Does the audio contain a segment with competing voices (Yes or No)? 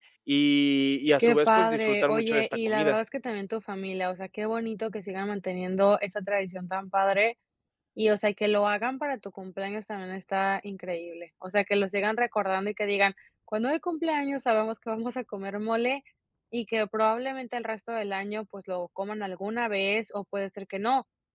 Yes